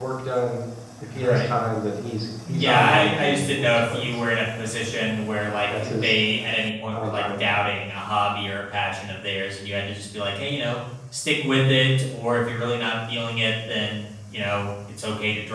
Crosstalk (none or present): present